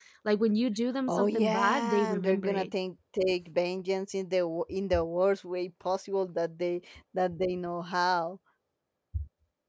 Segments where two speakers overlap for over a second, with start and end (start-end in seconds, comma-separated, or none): 1.1-2.7